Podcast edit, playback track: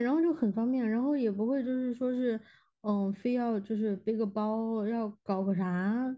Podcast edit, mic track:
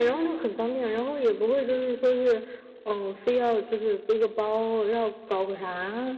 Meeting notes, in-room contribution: none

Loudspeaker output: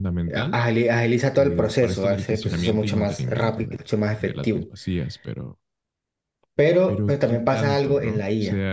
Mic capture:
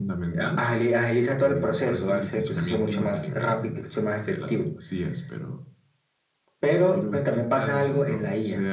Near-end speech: none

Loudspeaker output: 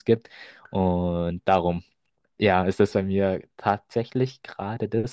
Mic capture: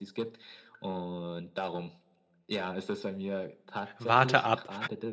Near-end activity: present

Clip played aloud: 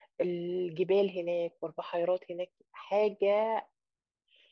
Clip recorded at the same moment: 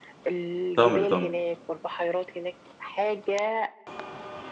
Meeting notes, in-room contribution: present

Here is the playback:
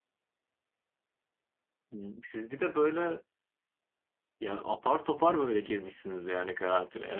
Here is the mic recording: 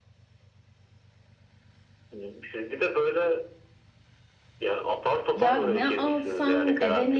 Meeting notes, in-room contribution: present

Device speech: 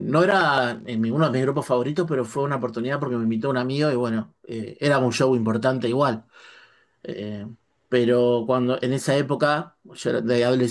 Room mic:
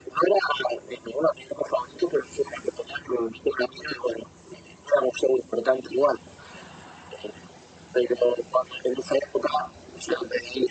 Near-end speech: none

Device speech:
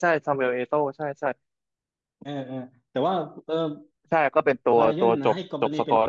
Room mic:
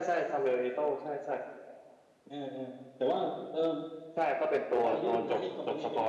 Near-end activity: none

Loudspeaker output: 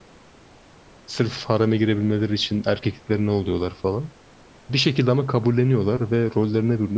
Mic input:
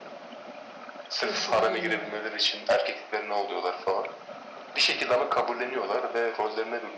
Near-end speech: present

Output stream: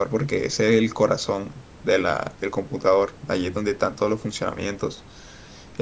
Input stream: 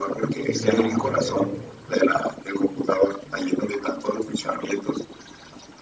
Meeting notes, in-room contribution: present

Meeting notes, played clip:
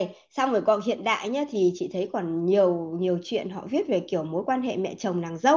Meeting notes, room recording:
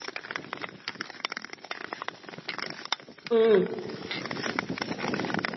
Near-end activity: present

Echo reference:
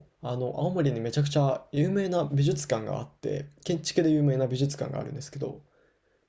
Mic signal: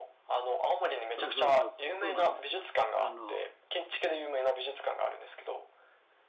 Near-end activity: present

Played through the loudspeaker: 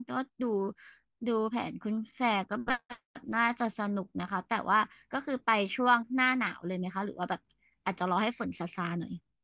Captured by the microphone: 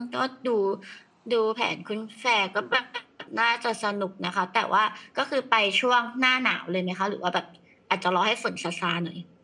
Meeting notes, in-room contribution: none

